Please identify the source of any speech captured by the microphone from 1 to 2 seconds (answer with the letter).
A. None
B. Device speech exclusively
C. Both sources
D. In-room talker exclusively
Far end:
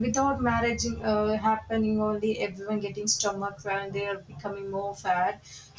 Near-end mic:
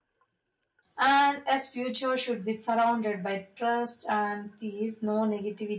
D